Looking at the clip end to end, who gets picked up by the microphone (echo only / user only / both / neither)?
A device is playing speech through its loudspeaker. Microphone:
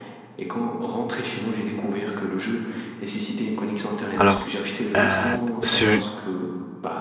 both